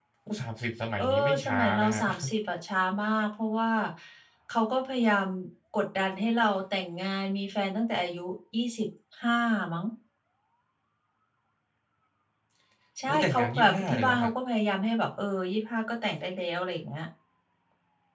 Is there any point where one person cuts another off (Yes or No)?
Yes